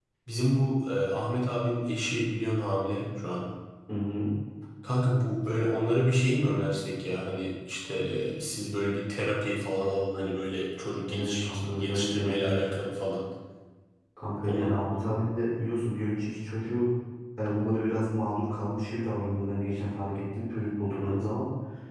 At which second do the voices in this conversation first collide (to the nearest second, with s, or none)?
11 s